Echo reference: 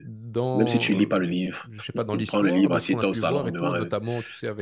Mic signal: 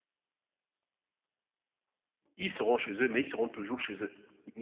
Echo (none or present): none